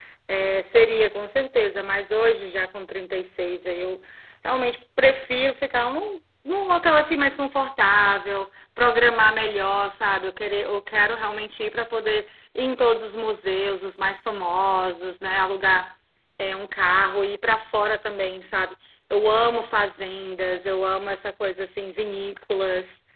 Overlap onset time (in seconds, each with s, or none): none